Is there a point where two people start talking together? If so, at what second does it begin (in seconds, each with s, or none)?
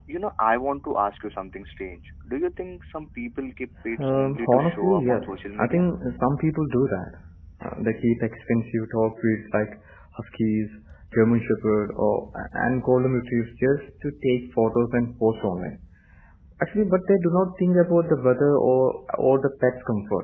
4.0 s